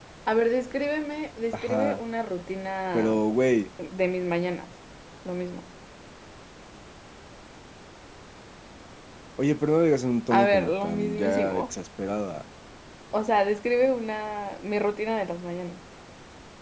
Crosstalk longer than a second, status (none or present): present